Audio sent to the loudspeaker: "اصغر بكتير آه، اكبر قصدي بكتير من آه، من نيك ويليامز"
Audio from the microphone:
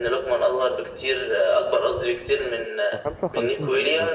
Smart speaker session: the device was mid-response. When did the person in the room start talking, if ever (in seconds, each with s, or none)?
2.9 s